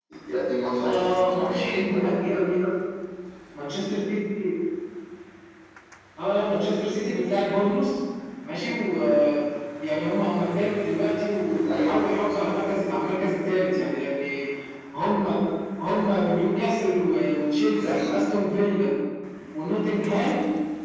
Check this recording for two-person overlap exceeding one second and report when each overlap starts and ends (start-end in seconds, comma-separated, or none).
0.8-2.0